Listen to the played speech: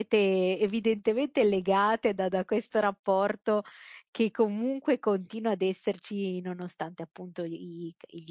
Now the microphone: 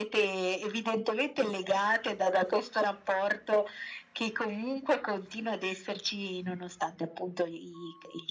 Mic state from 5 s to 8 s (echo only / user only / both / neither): echo only